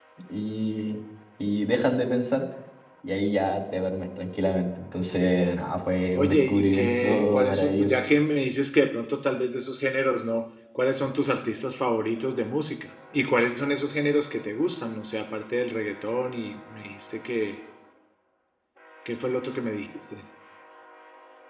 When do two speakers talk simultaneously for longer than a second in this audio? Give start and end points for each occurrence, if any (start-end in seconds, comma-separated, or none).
6.1-8.0